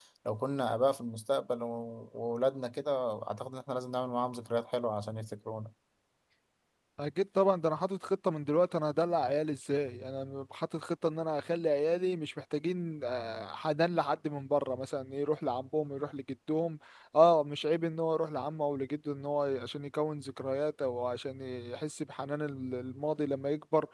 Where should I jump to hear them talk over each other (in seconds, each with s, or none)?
none